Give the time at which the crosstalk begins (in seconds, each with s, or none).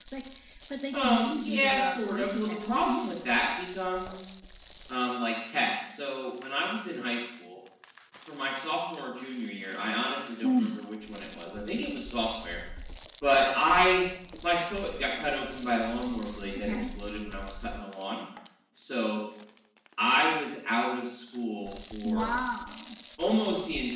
0.9 s